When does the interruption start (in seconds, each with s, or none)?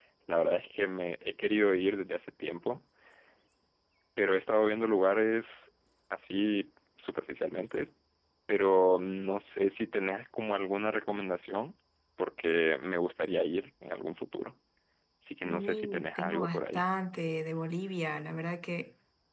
15.4 s